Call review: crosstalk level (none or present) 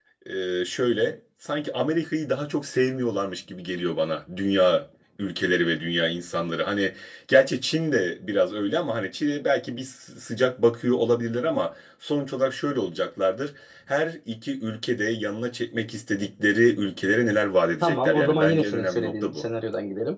present